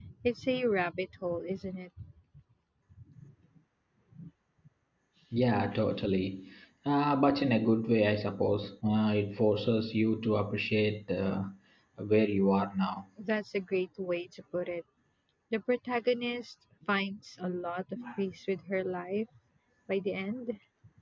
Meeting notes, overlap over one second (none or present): none